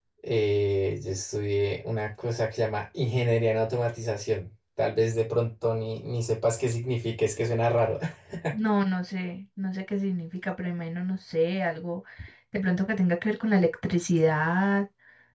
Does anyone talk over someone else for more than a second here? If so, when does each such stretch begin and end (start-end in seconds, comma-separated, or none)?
none